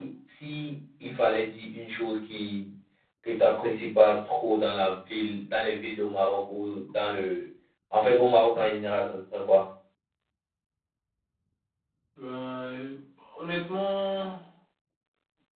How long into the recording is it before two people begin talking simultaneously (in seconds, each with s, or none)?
none